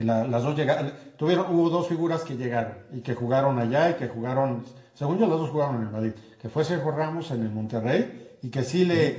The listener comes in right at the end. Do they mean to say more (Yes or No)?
No